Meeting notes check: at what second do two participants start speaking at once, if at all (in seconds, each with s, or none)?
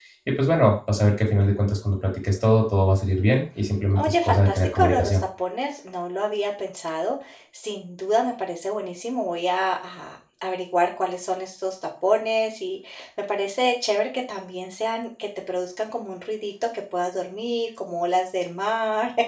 4.0 s